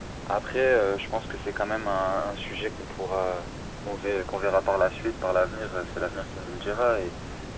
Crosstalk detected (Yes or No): No